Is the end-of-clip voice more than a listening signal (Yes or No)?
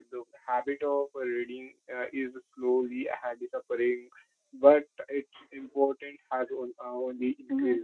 Yes